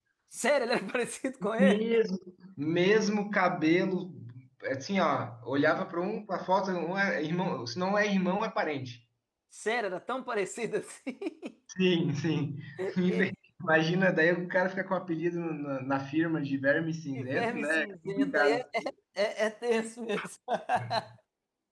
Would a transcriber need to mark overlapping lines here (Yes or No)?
Yes